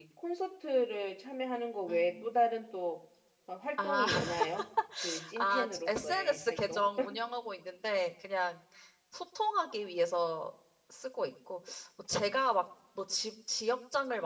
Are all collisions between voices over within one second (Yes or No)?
No